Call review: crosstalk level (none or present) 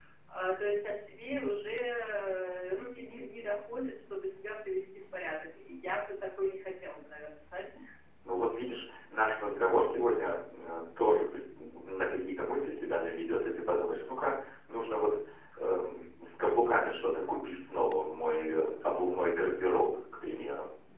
none